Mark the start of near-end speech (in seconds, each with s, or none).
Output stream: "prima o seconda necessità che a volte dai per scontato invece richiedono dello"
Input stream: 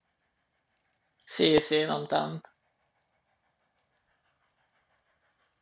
1.2 s